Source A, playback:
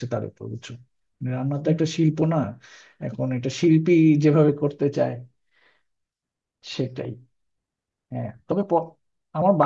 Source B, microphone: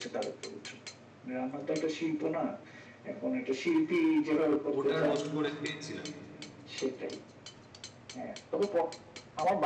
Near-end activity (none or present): present